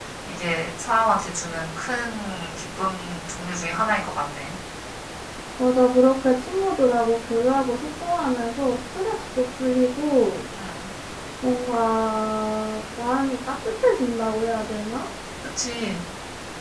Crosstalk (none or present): none